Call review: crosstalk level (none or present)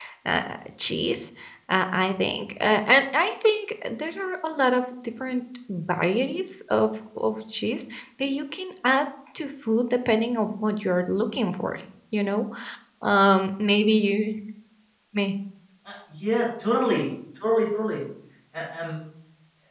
none